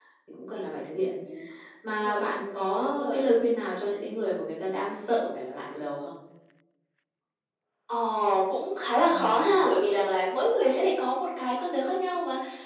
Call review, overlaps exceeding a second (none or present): none